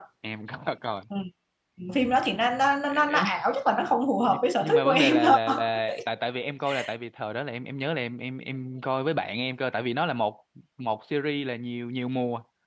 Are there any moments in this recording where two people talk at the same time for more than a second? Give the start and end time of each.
4.3-5.6

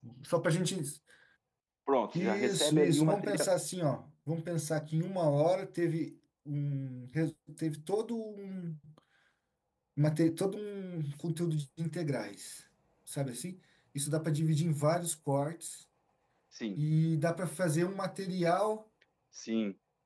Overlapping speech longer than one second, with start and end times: 2.1-3.5

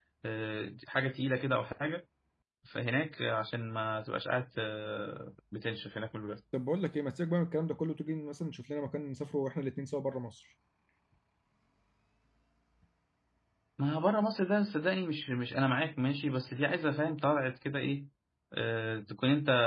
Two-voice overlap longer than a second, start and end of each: none

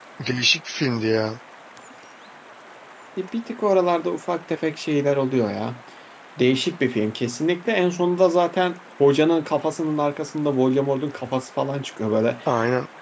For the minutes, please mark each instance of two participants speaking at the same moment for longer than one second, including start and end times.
none

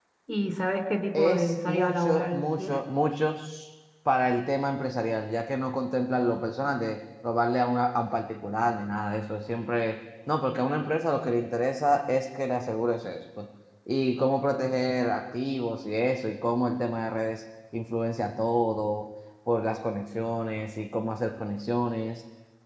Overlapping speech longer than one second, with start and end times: 1.1-2.8

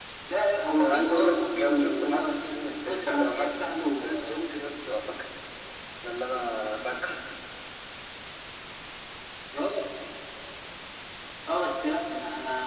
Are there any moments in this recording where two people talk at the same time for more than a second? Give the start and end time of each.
0.8-4.4

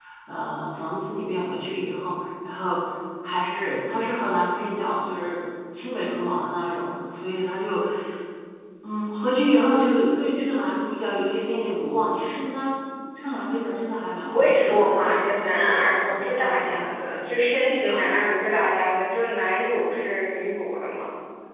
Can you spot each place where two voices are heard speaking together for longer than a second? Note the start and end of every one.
14.2-16.9

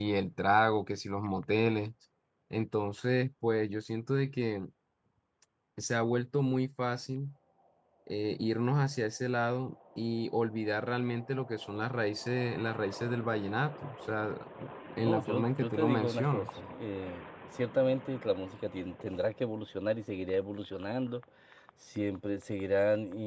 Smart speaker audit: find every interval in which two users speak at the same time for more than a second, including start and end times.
15.0-16.5

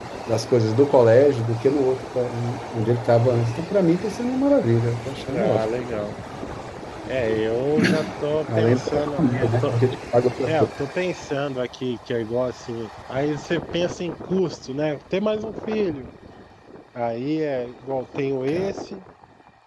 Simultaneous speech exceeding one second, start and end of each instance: 8.6-9.8

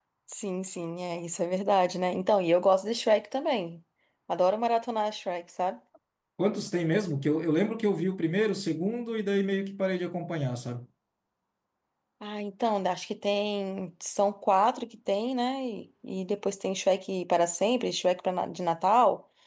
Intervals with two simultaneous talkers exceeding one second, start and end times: none

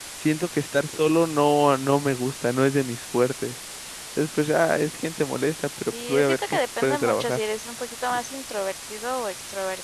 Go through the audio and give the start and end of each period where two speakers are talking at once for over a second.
6.1-7.4

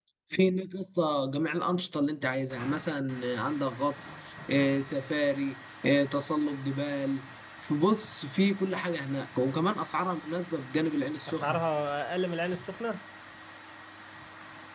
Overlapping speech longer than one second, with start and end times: none

